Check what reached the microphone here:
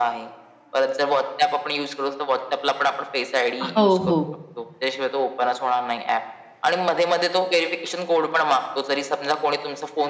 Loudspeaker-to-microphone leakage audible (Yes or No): Yes